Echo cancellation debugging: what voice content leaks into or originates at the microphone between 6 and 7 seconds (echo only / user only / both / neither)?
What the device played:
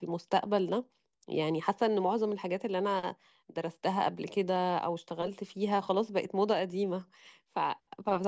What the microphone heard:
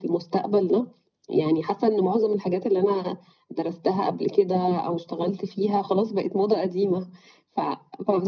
echo only